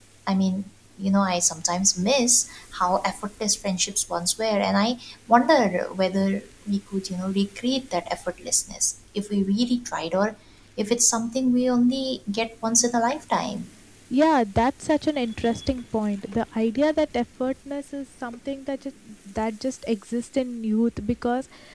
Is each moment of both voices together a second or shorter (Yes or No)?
Yes